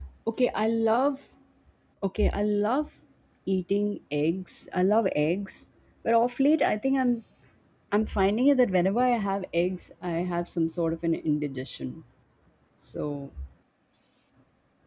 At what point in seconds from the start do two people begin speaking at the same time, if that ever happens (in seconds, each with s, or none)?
none